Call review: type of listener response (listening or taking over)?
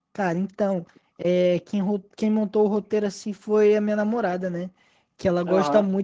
listening